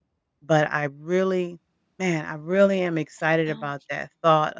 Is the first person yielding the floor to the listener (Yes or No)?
No